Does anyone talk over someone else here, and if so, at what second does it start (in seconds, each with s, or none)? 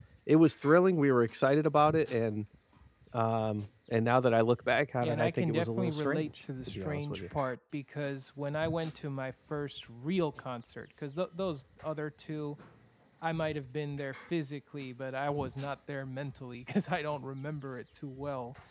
5.0 s